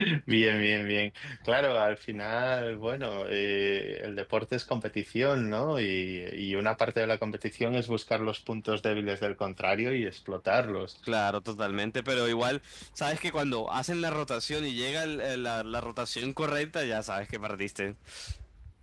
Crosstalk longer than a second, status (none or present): none